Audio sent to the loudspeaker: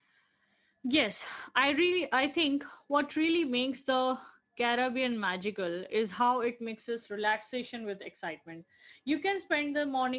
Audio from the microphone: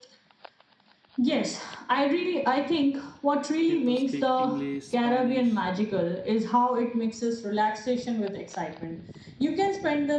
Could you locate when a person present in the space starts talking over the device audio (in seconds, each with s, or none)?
3.7 s